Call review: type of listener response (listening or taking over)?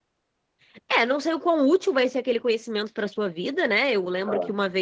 listening